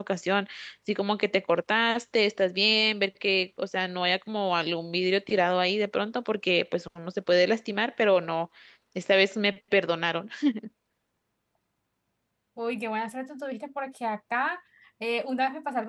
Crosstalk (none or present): none